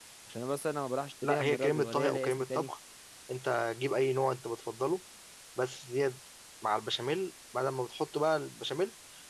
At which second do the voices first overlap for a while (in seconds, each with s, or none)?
1.2 s